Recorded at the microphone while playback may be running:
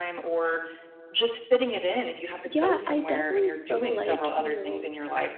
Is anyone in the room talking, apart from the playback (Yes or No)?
Yes